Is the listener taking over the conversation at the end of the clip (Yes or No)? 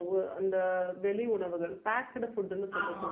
No